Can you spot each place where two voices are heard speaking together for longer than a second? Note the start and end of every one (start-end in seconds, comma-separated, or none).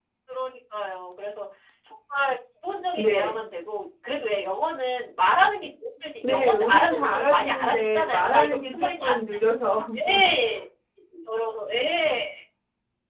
6.3-8.9